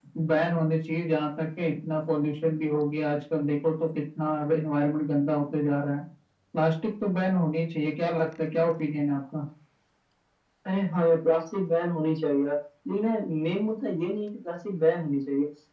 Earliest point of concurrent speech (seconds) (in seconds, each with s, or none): none